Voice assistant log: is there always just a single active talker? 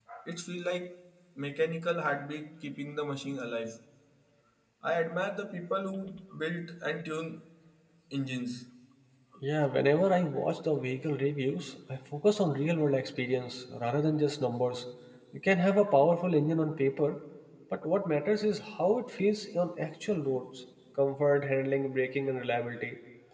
Yes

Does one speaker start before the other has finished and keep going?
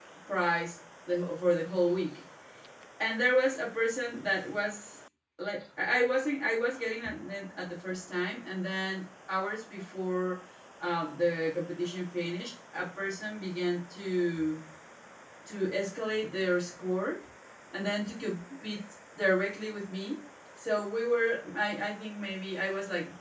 No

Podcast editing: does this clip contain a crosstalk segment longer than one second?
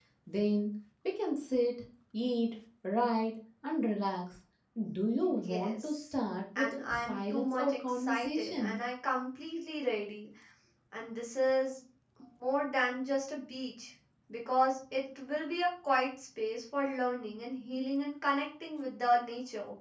Yes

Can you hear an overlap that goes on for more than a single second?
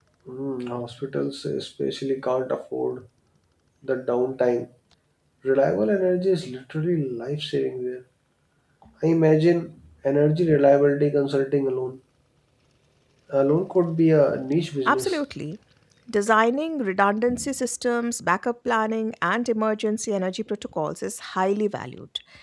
No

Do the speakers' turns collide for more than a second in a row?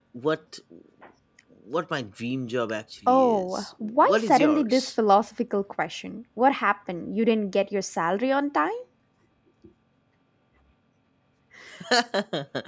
Yes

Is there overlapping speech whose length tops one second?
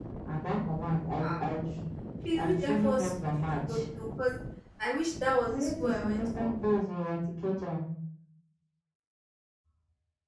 Yes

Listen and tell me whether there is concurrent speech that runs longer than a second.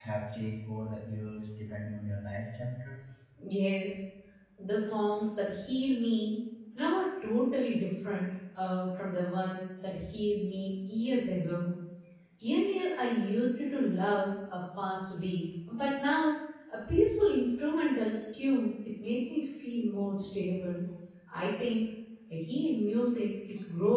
No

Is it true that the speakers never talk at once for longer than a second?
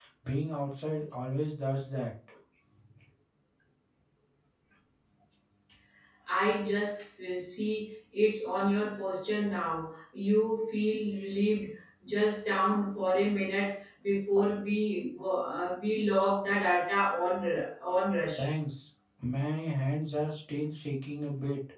Yes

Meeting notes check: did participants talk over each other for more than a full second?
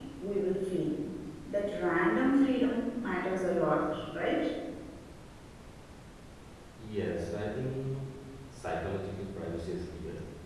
No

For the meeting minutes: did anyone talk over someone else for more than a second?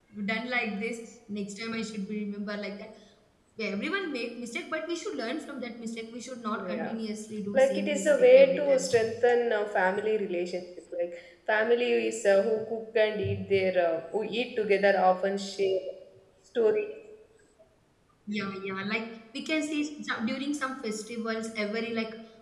Yes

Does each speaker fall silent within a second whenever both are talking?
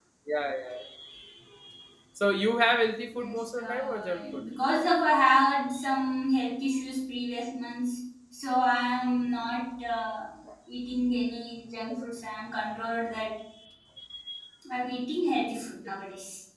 No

